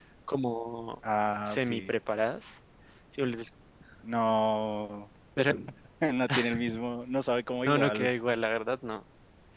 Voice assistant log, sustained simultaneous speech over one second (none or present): none